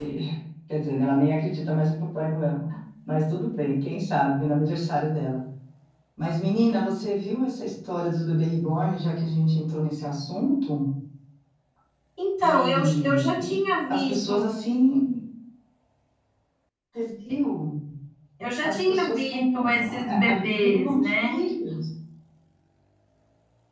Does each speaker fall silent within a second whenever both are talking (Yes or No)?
No